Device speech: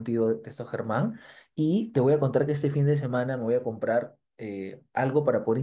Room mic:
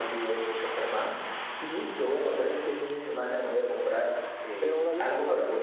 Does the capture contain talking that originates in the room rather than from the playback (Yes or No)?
Yes